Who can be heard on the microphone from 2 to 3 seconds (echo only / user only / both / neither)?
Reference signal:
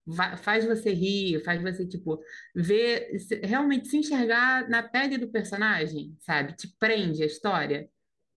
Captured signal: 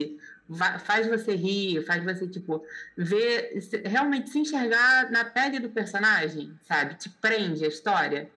echo only